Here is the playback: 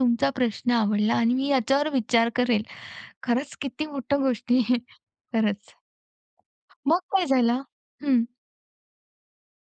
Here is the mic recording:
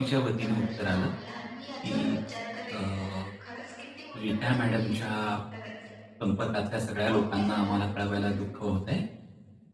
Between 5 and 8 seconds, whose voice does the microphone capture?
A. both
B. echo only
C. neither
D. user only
A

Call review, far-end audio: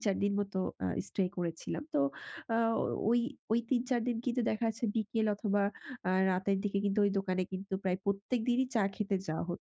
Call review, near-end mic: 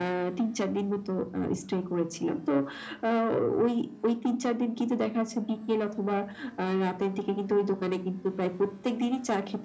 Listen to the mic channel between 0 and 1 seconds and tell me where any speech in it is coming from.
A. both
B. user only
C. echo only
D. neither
C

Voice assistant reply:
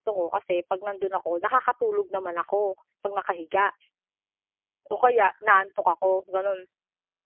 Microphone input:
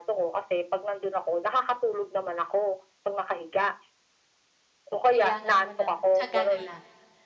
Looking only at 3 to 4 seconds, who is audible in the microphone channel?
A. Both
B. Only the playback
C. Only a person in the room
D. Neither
B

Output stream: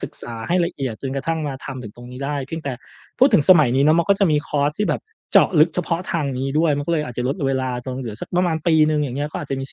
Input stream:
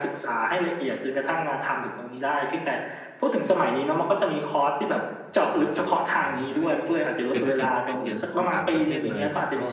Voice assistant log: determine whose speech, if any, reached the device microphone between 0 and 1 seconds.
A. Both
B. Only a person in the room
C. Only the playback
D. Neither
C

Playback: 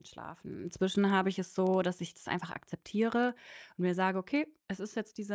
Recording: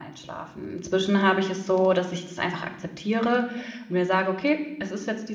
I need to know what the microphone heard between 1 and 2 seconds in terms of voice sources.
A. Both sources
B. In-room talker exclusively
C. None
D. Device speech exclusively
D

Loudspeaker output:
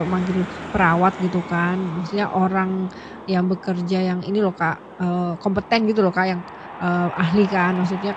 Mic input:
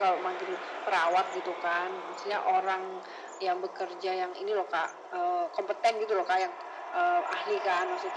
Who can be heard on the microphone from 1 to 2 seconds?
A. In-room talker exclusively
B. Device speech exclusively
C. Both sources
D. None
B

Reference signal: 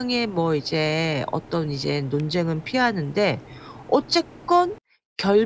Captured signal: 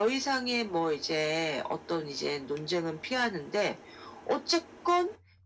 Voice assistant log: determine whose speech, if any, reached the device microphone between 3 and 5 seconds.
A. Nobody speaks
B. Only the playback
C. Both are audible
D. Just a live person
B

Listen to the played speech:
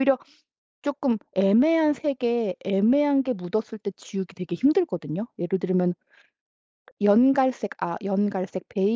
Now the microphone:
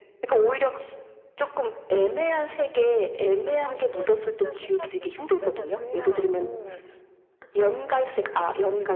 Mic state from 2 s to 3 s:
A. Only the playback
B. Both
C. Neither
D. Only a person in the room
A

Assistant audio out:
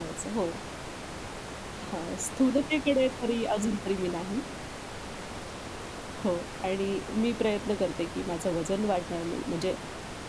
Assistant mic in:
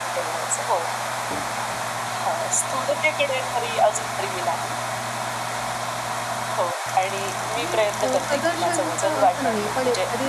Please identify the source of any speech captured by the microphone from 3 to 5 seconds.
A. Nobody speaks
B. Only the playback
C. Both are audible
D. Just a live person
B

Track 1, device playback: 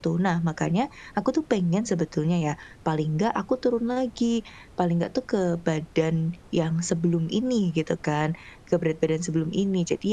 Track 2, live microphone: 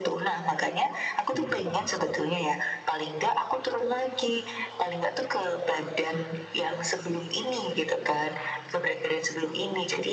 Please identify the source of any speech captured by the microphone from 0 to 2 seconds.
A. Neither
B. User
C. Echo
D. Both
D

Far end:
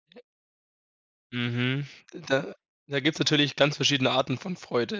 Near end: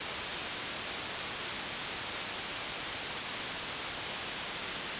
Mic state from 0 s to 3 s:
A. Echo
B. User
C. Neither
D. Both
C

